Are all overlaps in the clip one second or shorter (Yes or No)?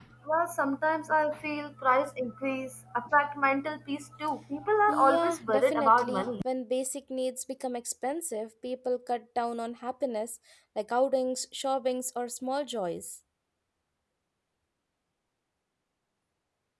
No